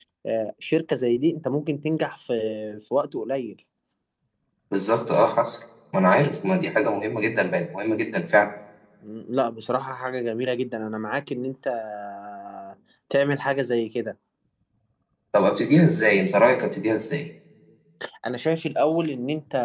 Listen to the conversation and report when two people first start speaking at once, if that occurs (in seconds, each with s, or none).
none